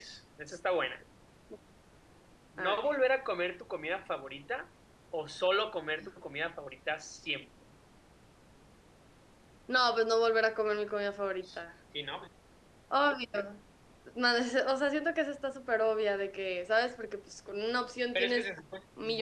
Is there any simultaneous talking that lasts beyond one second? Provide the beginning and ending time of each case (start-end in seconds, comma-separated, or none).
none